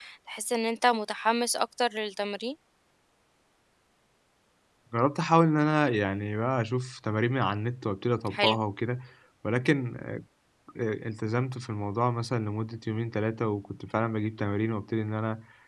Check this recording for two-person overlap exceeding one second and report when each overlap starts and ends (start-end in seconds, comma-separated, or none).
none